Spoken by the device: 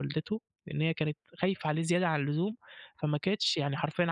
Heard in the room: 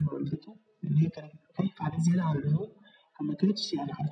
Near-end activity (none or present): none